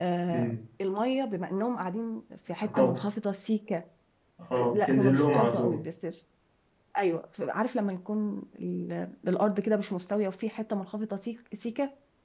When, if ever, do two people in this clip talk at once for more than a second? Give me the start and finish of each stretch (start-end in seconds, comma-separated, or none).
4.6-5.8